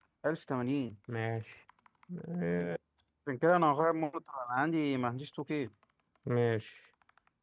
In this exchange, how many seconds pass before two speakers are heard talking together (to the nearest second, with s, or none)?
none